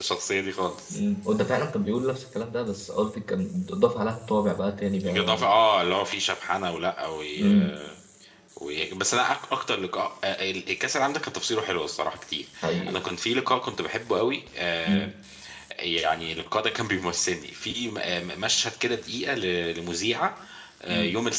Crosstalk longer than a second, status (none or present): none